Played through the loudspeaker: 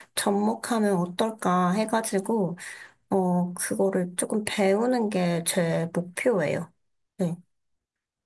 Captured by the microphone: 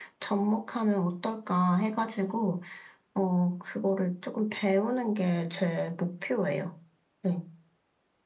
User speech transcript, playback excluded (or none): none